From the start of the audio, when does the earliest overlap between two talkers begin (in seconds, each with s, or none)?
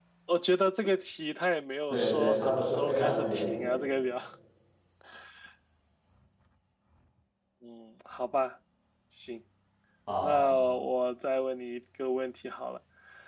1.9 s